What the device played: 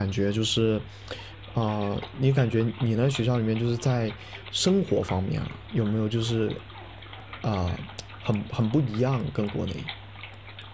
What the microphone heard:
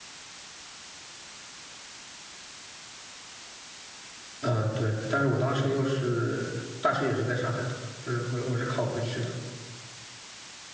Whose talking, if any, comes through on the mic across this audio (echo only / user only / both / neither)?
user only